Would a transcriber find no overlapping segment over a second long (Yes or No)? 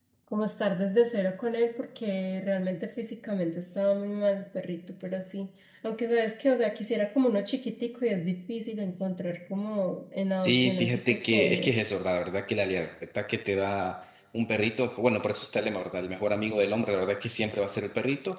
No